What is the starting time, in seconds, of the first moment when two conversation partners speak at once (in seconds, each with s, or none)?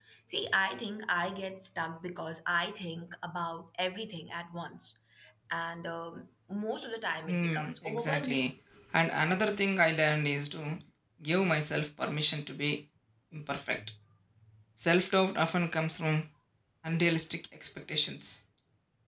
7.3 s